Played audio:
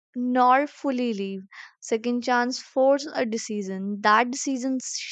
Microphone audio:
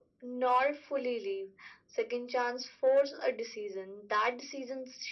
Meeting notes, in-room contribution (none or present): none